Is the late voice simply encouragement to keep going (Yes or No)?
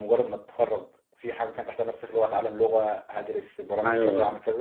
No